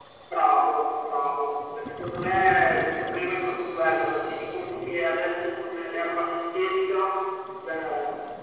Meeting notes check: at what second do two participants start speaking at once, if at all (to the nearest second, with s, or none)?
none